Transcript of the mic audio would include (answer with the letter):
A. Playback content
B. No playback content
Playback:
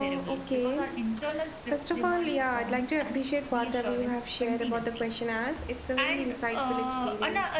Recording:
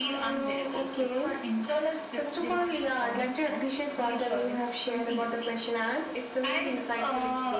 A